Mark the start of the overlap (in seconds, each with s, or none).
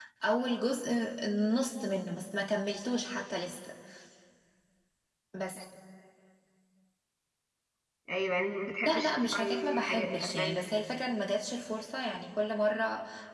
8.9 s